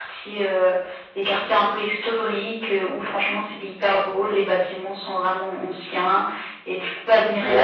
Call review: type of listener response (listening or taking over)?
taking over